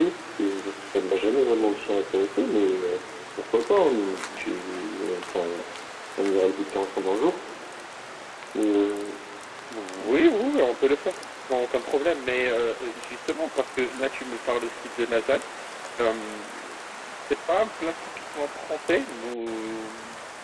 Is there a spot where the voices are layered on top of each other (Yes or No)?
No